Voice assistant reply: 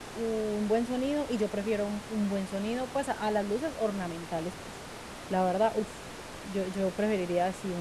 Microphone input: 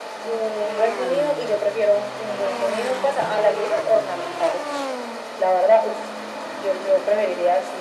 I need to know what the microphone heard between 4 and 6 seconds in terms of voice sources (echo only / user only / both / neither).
echo only